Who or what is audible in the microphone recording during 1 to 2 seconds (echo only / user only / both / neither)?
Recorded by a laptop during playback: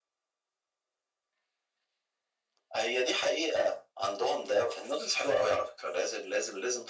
neither